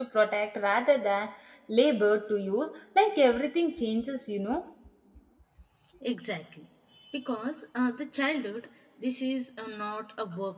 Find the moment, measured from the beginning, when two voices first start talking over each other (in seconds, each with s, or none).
none